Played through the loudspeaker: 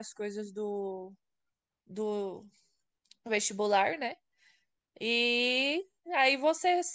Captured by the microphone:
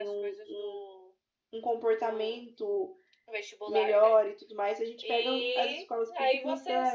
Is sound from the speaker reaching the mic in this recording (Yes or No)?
Yes